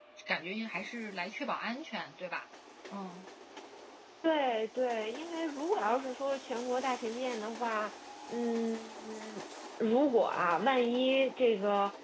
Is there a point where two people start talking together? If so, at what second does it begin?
none

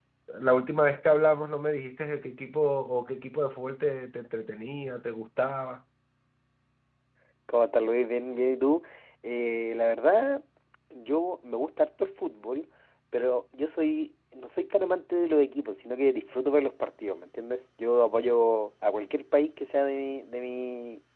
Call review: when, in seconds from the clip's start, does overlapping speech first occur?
none

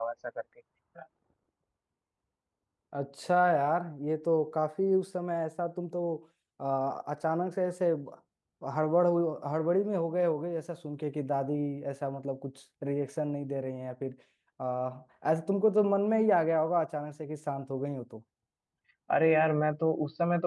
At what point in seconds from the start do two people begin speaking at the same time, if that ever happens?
none

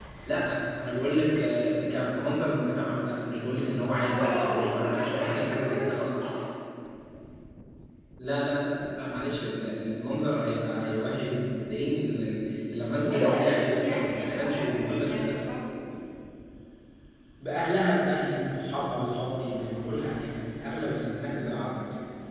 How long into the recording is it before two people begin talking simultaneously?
4.0 s

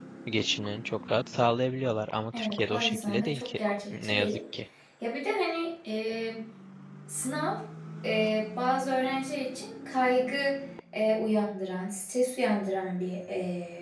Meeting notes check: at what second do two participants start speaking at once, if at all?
2.3 s

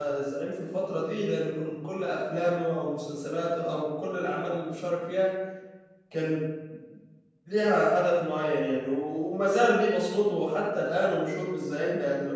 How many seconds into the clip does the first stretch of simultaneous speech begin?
none

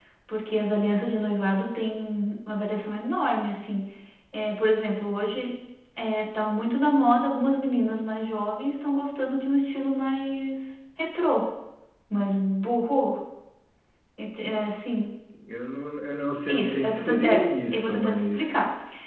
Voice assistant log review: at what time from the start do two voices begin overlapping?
16.5 s

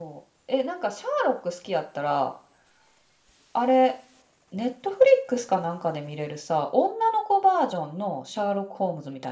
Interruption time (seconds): none

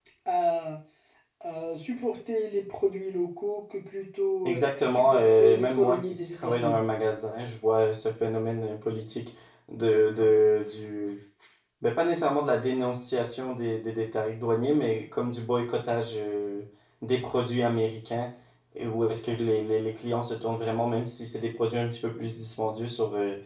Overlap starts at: 4.4 s

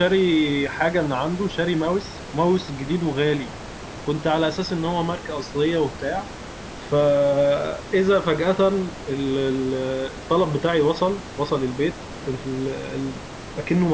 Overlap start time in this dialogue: none

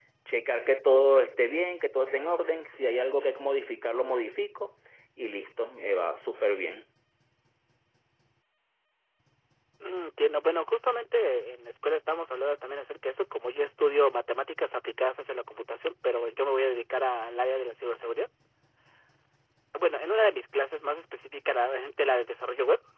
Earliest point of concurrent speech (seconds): none

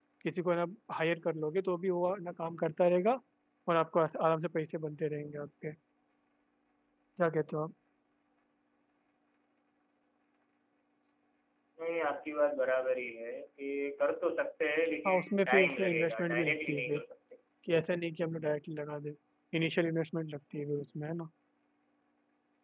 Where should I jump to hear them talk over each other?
15.0 s

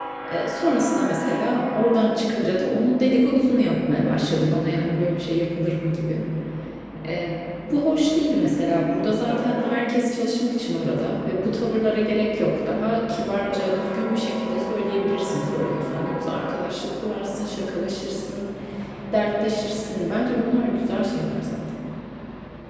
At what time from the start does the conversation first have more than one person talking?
none

